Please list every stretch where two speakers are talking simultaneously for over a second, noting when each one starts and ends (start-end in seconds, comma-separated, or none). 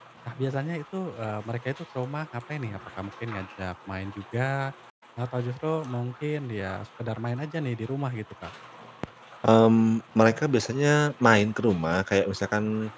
none